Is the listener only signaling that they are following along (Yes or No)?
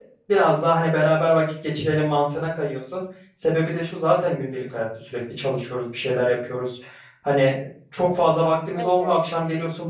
Yes